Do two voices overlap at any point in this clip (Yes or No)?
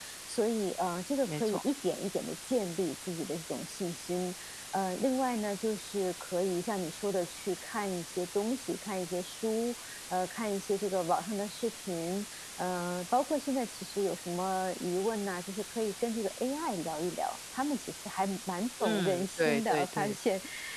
Yes